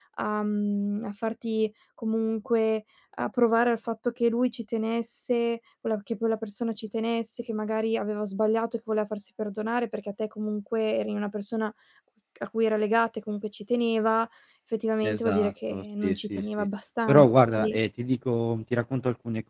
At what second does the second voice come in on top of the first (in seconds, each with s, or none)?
15.0 s